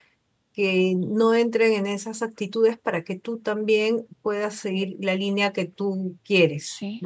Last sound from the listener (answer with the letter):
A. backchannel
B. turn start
B